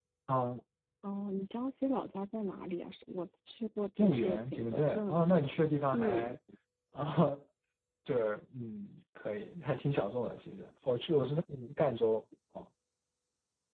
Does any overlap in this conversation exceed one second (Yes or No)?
Yes